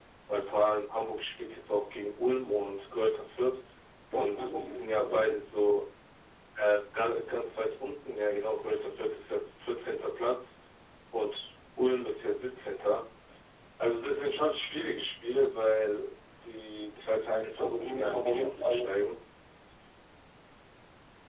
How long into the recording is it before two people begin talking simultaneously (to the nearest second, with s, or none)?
4 s